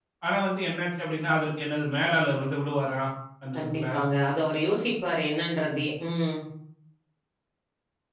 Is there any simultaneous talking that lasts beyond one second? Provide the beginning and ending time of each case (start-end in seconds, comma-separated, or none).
none